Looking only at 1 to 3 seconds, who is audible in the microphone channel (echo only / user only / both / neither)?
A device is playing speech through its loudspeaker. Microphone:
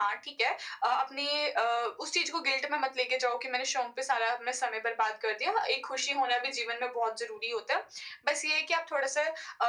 echo only